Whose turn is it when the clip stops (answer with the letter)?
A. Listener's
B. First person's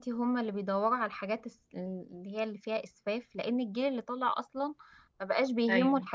B